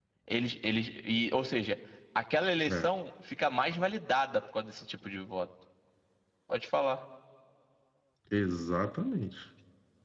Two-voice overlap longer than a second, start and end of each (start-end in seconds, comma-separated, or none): none